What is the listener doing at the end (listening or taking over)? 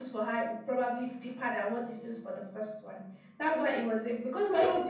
listening